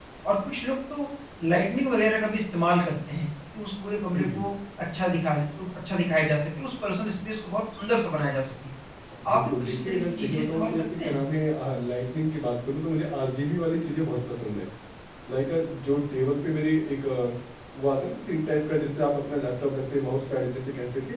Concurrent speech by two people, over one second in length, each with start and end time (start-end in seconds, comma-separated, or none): 9.2-11.2